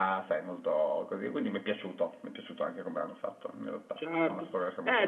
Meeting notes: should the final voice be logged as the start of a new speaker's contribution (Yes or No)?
Yes